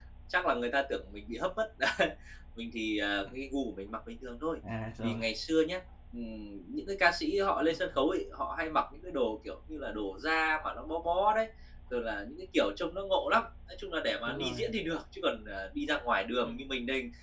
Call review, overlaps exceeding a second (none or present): none